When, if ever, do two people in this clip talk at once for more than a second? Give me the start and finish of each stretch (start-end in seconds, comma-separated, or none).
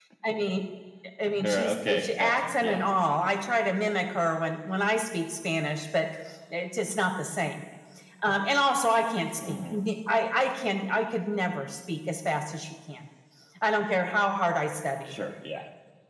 1.4-2.8